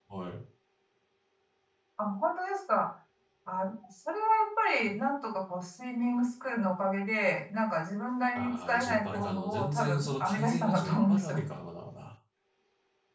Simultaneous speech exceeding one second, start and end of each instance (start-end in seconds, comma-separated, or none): 8.3-11.5